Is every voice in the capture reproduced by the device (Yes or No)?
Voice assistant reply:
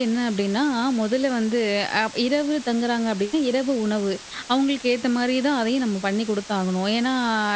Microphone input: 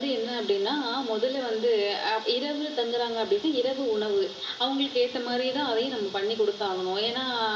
Yes